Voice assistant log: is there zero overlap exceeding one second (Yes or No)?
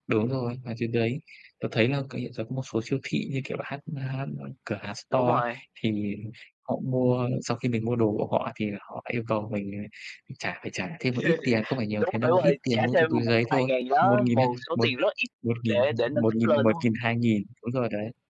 No